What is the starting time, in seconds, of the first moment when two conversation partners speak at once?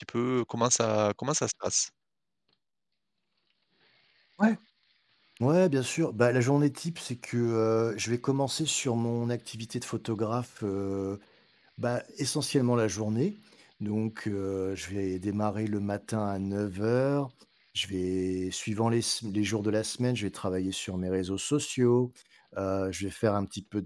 none

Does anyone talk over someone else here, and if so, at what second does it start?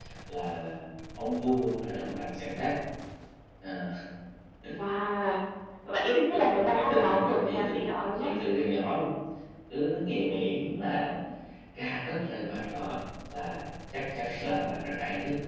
6.3 s

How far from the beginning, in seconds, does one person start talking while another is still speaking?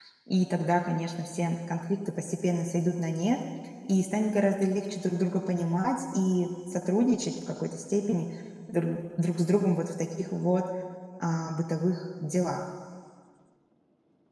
none

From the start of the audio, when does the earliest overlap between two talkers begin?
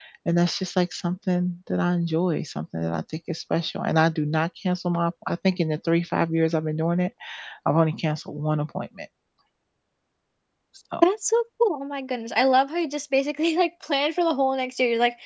none

